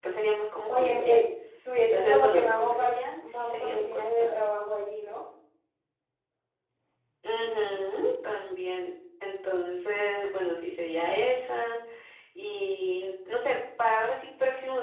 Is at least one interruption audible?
Yes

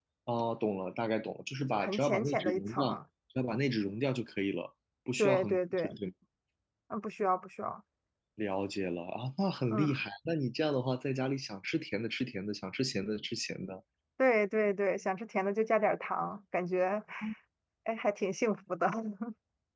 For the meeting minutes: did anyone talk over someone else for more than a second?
Yes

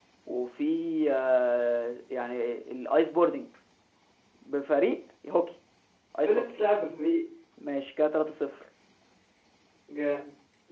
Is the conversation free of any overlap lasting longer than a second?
Yes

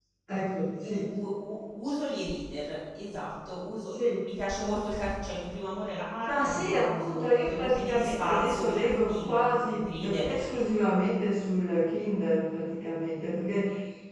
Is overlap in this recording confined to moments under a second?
No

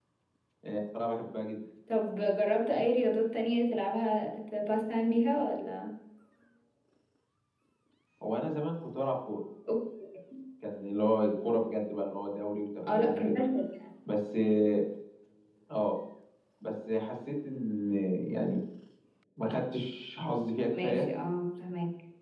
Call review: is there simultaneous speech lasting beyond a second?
No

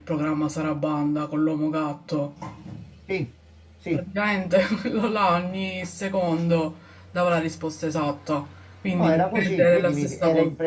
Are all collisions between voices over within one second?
No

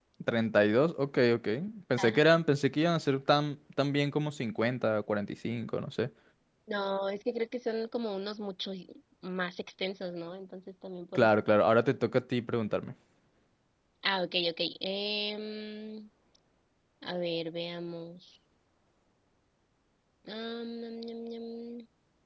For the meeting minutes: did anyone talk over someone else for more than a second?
No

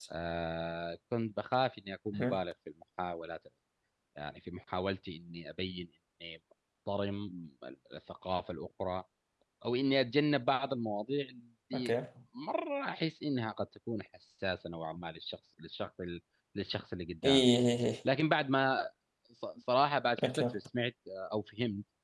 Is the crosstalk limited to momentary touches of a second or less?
Yes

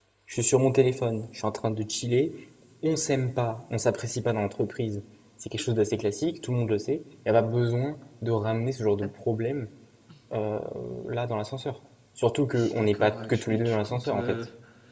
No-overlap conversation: No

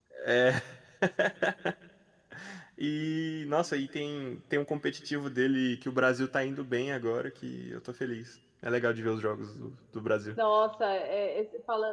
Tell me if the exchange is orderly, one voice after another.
Yes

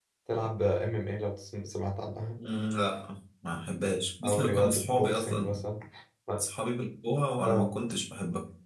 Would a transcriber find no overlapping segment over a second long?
No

